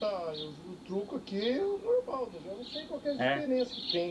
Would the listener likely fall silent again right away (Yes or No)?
Yes